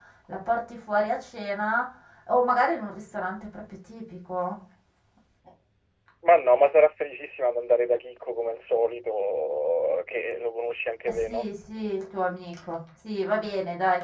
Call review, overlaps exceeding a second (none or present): none